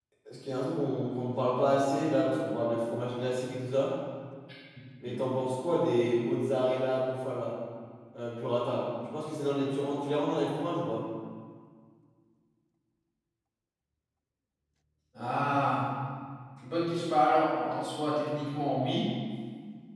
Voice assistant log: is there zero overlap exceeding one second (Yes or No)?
Yes